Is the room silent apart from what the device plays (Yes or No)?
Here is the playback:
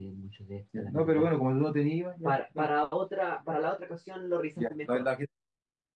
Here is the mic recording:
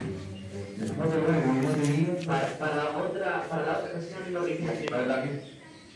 Yes